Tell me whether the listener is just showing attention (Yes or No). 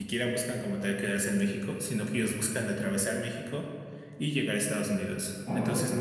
Yes